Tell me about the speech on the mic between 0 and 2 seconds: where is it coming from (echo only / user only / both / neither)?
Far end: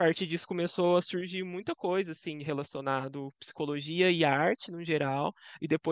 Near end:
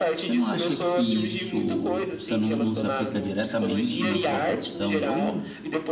both